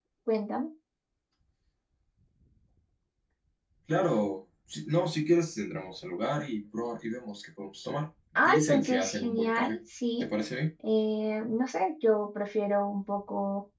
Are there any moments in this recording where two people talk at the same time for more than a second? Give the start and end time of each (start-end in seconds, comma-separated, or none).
8.4-9.8